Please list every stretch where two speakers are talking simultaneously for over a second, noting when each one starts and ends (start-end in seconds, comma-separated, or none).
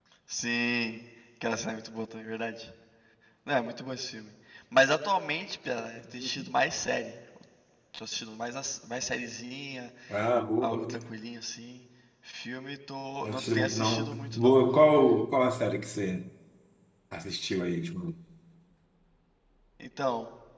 13.2-14.6